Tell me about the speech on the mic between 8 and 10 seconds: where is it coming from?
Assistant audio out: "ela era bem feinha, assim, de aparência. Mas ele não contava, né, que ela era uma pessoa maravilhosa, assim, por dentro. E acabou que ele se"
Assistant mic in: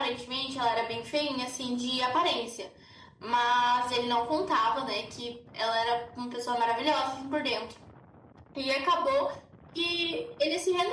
echo only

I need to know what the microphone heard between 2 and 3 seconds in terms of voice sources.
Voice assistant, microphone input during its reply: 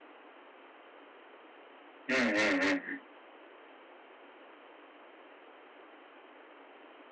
user only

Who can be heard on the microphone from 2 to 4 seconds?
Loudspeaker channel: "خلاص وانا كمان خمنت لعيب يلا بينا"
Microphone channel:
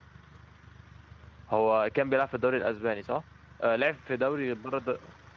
user only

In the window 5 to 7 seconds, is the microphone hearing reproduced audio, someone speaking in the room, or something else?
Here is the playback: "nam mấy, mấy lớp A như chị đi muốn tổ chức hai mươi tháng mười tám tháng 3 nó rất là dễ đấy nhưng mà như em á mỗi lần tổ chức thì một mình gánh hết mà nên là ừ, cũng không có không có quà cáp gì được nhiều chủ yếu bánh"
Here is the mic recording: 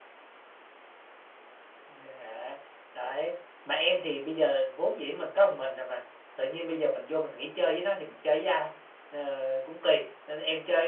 user only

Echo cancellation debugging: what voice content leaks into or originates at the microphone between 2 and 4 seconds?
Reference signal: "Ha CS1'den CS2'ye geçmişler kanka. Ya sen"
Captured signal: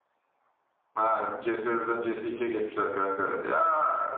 echo only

